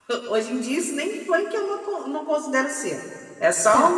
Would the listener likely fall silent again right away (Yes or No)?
No